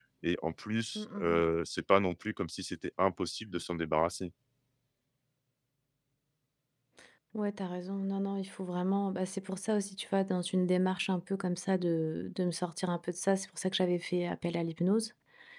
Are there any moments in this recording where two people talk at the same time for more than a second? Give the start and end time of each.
none

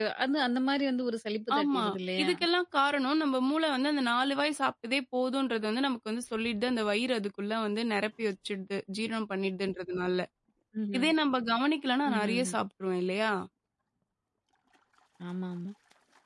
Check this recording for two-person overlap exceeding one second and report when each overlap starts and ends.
none

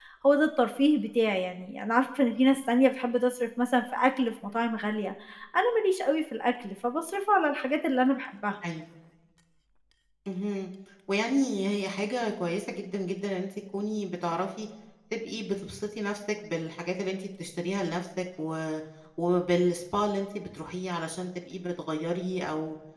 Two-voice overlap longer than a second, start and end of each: none

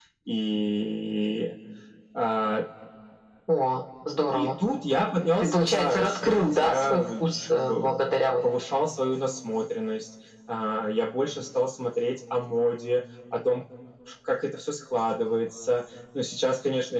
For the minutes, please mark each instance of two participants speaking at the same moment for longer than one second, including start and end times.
5.4-7.9

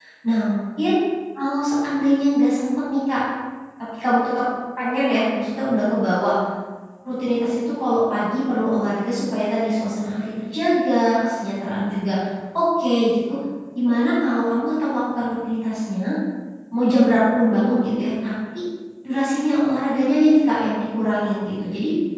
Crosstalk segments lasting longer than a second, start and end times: none

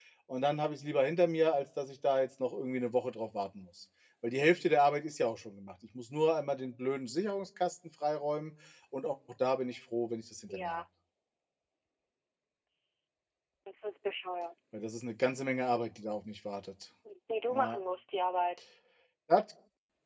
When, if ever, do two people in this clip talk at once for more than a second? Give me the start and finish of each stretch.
none

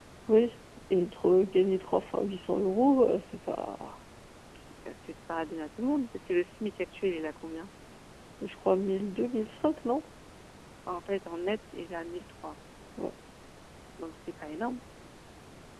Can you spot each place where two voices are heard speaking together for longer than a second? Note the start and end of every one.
none

